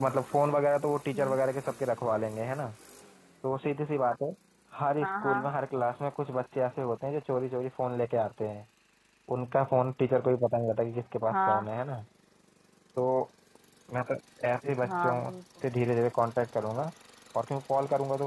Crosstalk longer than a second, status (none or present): none